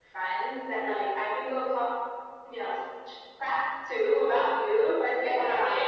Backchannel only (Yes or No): Yes